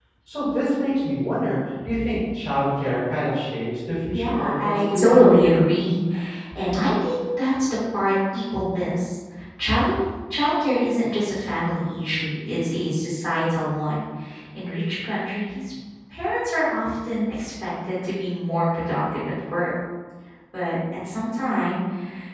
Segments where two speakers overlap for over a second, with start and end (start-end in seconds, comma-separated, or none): 4.1-5.5